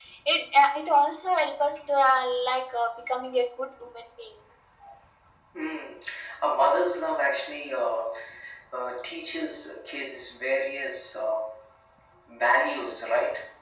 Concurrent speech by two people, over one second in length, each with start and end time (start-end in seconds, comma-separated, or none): none